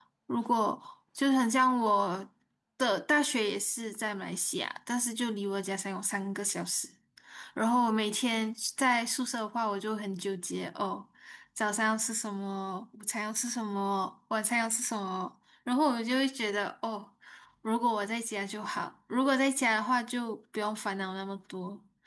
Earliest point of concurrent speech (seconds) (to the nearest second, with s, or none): none